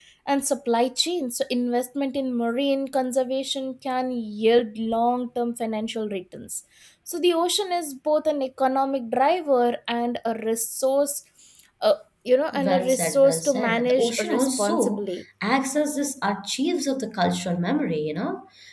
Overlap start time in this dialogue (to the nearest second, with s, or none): 13 s